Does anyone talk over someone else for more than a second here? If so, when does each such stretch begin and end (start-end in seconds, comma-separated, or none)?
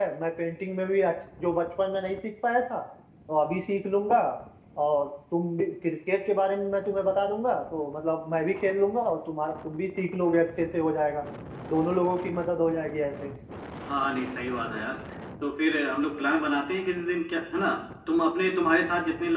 none